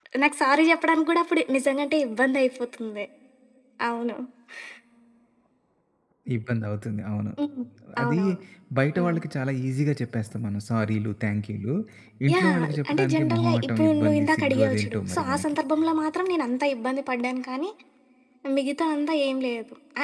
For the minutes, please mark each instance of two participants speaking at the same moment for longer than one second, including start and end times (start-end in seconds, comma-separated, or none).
12.3-15.6